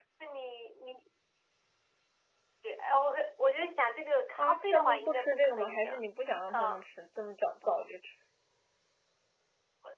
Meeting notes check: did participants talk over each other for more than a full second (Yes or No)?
Yes